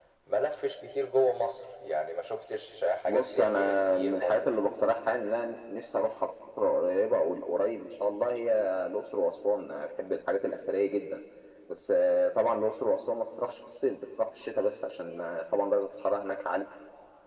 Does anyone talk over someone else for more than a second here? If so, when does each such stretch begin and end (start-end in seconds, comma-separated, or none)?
3.1-4.5